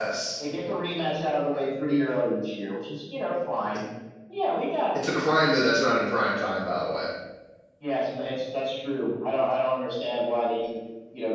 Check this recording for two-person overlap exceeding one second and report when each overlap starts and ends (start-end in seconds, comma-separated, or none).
none